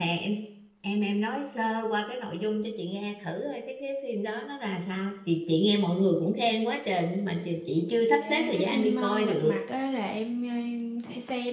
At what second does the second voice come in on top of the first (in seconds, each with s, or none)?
8.2 s